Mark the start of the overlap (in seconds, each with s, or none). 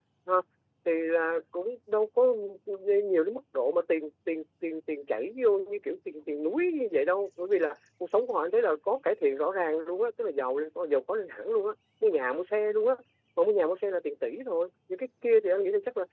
none